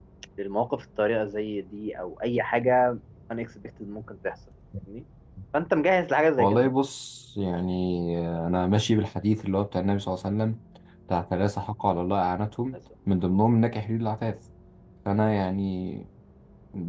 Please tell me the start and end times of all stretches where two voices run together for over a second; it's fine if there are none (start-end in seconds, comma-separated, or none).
none